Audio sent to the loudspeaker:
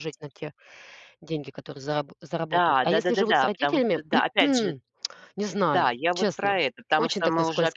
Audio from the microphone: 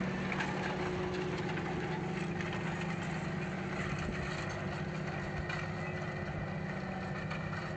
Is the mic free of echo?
Yes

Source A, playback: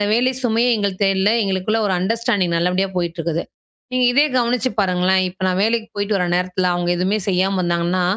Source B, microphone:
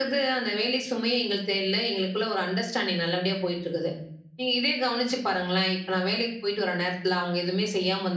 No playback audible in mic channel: No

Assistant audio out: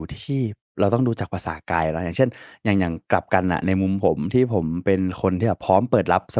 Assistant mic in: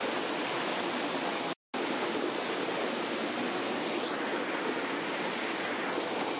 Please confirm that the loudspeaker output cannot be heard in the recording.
Yes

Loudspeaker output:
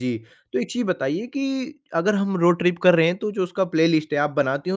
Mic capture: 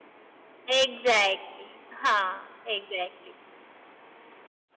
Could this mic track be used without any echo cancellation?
Yes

